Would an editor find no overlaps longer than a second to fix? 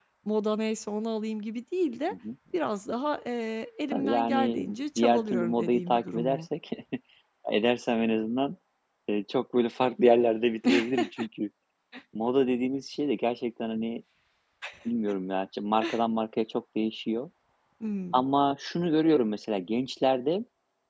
No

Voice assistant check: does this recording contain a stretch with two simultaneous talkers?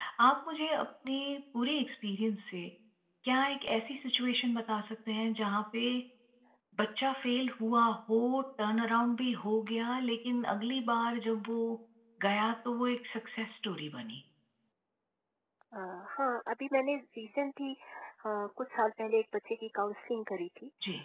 No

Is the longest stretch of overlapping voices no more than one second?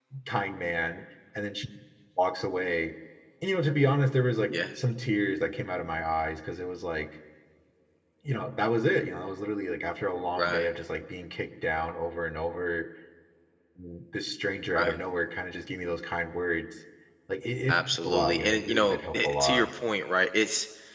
No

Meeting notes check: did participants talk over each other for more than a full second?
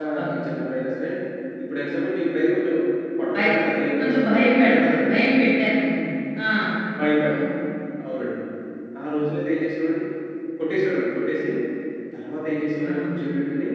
Yes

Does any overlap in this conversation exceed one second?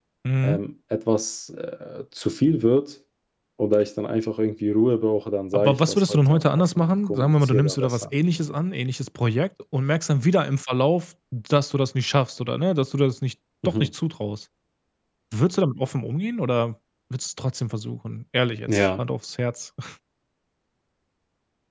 Yes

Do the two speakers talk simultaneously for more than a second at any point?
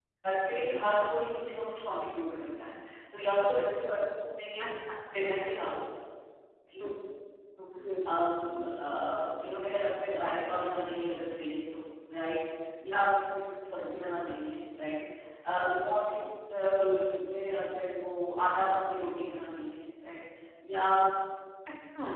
No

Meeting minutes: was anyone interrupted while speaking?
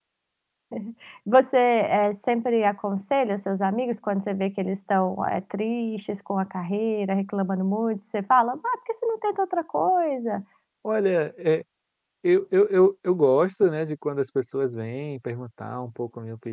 No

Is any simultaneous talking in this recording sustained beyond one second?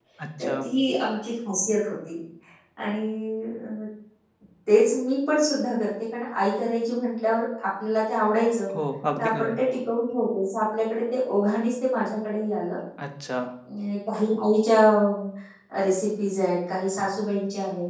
No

